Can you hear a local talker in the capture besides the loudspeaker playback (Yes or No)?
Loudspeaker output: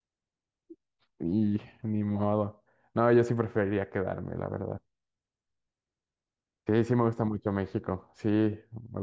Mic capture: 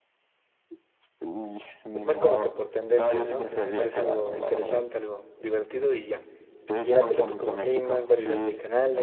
Yes